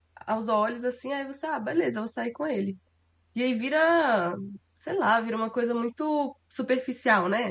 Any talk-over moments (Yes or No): No